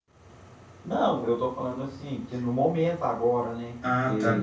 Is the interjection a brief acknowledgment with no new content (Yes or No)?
No